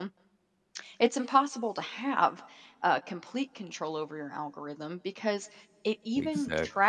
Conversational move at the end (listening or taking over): listening